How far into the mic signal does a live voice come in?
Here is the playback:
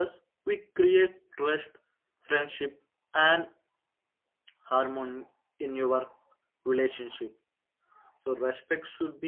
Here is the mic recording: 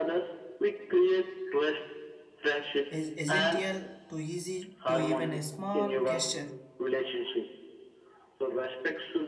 3 s

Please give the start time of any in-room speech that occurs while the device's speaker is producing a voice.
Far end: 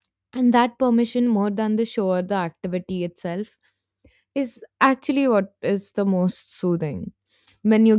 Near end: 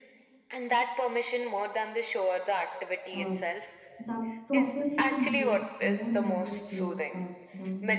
3 s

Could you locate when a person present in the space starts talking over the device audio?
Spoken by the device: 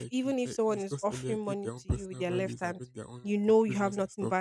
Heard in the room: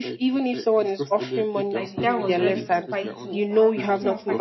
2 s

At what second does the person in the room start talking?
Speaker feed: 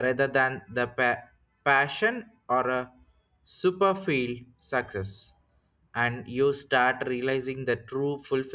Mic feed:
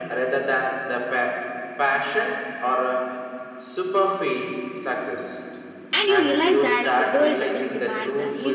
6 s

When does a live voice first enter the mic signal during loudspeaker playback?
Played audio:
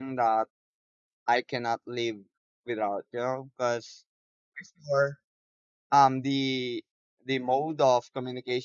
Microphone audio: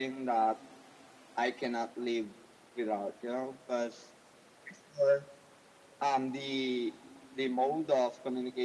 none

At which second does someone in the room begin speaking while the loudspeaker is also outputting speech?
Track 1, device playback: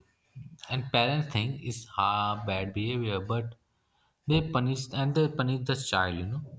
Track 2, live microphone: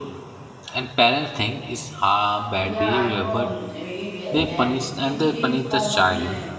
3 s

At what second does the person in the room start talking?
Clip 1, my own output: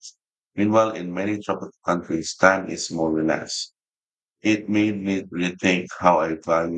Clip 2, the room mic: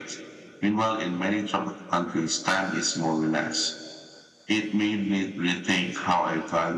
none

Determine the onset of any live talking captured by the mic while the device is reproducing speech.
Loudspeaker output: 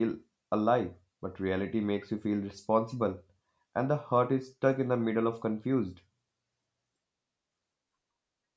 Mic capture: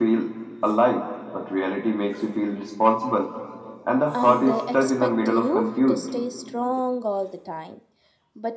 4 s

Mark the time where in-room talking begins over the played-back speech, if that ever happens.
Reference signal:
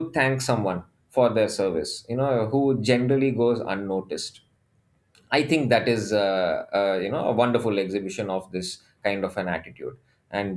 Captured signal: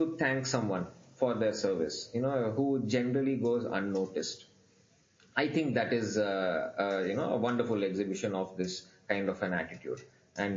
none

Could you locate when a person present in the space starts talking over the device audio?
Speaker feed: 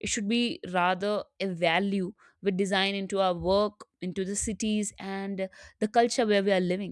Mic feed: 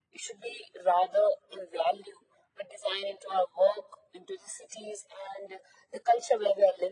none

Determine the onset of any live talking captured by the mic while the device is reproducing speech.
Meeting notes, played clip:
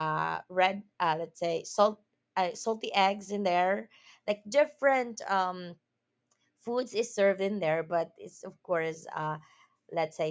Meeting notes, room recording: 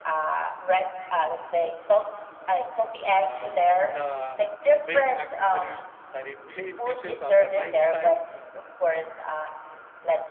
3 s

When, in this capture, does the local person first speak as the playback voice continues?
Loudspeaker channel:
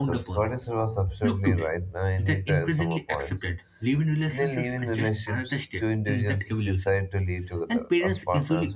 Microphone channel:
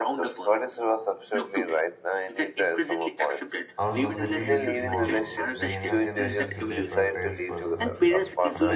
4 s

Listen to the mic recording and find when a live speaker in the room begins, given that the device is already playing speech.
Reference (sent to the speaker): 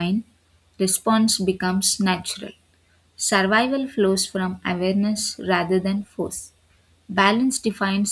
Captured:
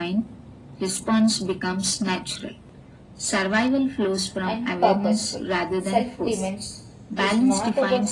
4 s

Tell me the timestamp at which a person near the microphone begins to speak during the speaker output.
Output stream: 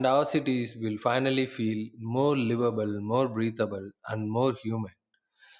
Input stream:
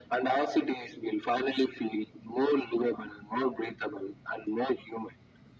none

